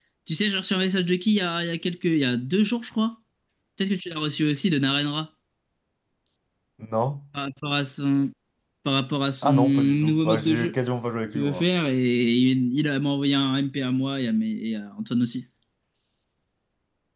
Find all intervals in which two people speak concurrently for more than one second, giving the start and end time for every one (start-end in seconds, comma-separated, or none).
9.4-10.7